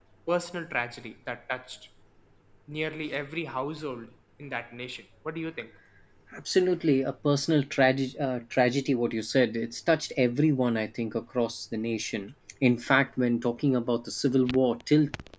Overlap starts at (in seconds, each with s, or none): none